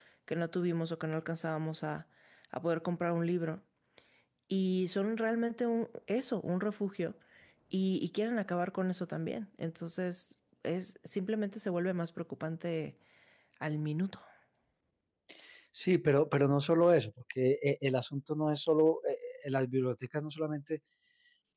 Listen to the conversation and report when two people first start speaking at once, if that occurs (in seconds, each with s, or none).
none